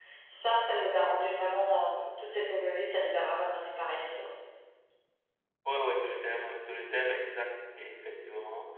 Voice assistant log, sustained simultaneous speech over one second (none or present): none